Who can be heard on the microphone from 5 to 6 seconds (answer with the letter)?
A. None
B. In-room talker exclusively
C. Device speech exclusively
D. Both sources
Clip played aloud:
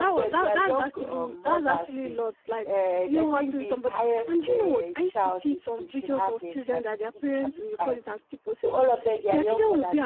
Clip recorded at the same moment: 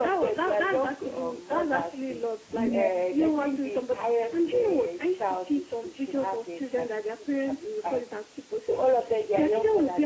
C